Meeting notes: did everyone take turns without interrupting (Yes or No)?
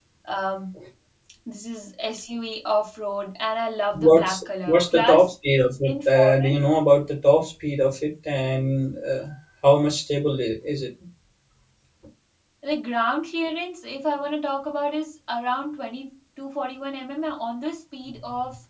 No